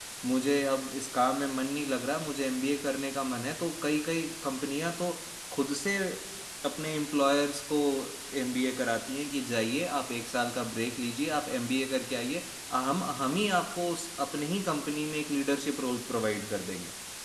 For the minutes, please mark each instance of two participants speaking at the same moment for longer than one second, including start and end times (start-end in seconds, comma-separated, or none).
none